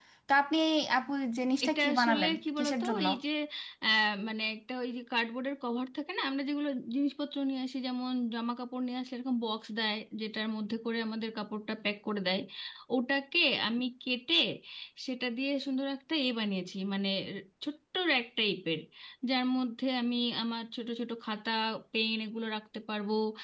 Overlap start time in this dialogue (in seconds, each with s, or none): 1.6 s